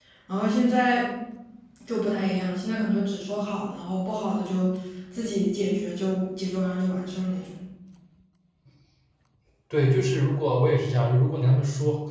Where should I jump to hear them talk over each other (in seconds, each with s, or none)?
none